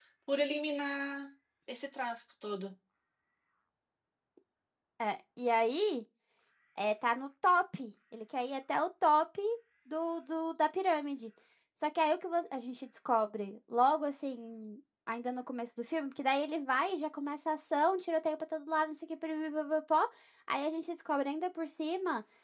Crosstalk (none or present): none